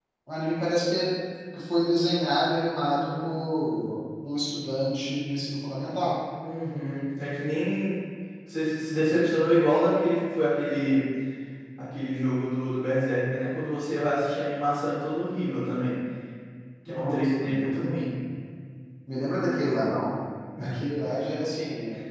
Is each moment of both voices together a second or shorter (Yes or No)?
No